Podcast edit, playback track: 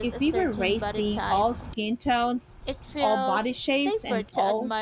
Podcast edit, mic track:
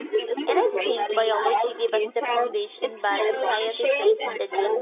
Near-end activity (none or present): present